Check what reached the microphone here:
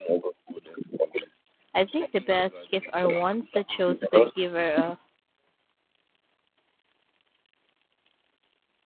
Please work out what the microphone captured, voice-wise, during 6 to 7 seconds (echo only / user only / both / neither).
neither